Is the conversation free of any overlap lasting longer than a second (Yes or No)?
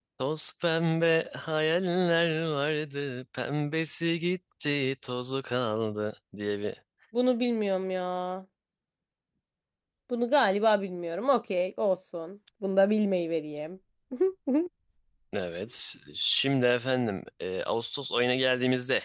Yes